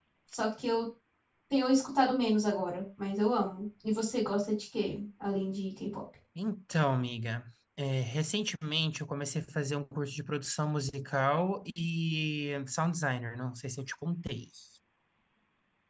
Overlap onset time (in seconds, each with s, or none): none